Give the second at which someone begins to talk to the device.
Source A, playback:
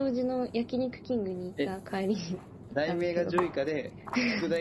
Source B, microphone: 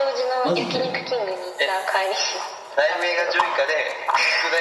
0.4 s

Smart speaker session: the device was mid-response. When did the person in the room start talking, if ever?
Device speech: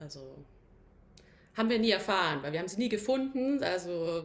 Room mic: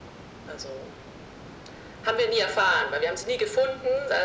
none

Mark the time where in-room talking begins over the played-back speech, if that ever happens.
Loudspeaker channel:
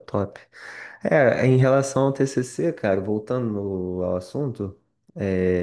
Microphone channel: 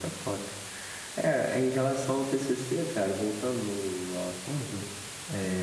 none

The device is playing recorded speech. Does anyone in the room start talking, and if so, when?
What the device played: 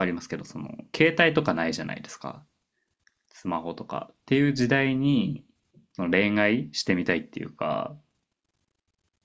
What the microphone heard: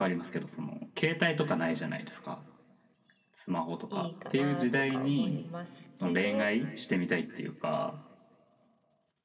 3.9 s

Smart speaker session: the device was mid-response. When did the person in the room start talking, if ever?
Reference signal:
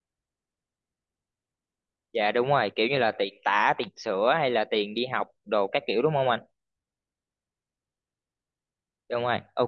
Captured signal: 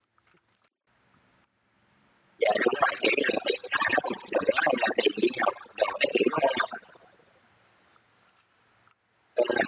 none

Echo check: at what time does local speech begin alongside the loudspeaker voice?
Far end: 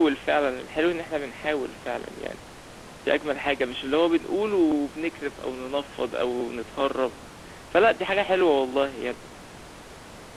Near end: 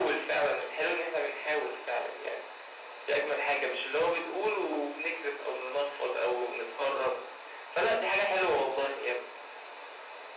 none

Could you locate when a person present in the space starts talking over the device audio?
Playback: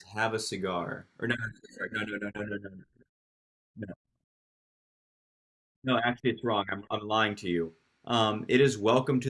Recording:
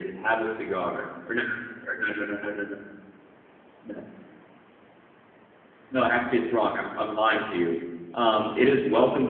none

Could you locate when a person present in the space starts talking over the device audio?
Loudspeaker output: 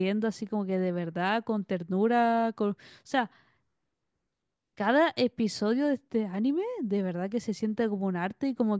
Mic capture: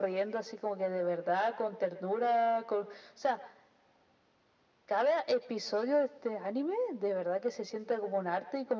none

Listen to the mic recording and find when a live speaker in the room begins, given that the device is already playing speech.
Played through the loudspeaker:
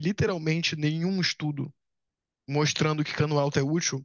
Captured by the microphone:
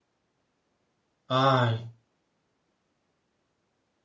1.3 s

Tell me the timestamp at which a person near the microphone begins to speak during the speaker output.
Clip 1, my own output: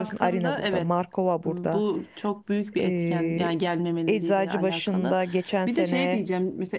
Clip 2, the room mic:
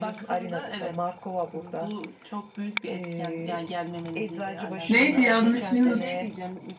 4.9 s

